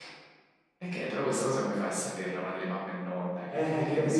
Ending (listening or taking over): taking over